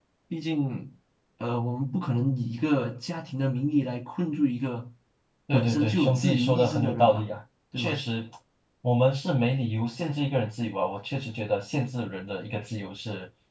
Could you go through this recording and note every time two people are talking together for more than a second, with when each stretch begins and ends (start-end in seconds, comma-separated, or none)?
5.5-7.3